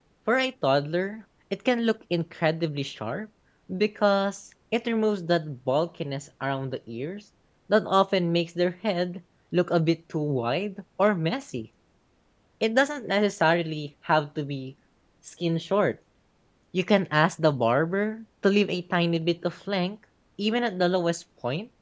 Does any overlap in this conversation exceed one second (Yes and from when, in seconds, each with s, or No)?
No